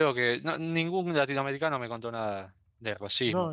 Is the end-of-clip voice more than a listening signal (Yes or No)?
Yes